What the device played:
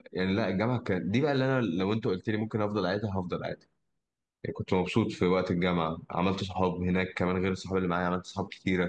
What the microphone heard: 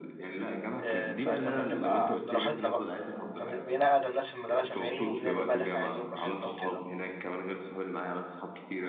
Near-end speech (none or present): present